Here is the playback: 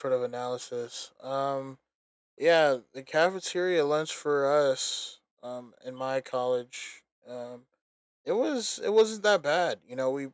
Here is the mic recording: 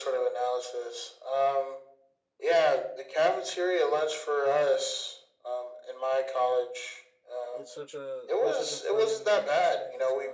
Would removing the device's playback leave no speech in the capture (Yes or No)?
No